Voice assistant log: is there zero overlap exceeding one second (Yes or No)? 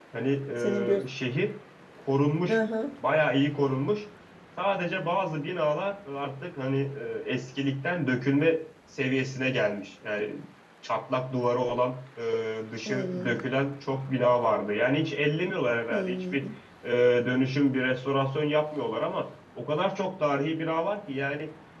Yes